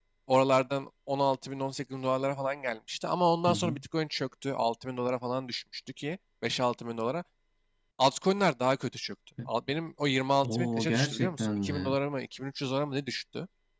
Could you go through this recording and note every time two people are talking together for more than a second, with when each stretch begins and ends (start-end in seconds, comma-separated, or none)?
10.4-12.0